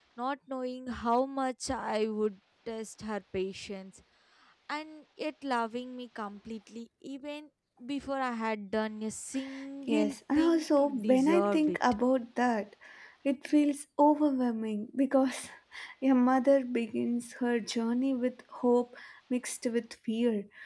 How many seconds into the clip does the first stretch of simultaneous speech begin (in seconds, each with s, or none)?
9.9 s